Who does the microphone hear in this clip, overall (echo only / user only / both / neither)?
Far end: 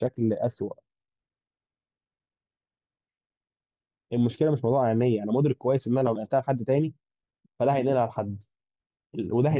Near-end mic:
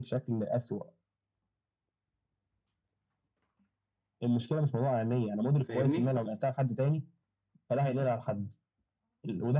both